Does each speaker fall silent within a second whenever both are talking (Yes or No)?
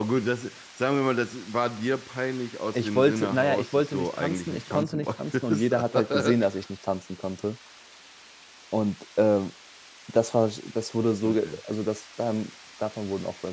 No